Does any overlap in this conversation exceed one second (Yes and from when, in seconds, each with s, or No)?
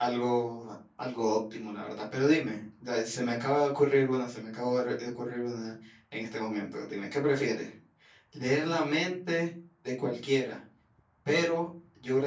No